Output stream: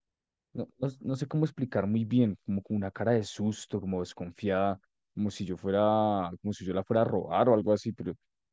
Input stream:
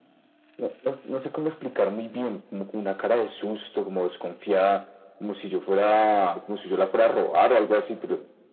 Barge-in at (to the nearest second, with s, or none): none